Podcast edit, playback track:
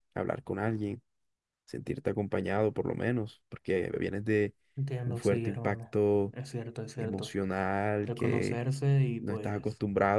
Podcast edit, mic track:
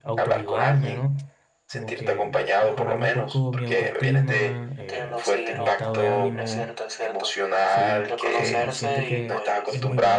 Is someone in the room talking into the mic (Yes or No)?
Yes